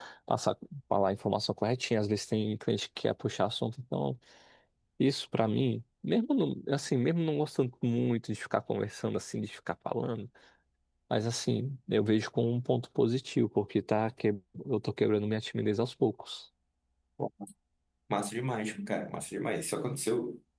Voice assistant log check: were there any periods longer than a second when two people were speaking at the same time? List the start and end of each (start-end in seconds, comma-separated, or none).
none